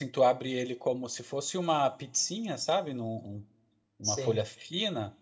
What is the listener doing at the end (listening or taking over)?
listening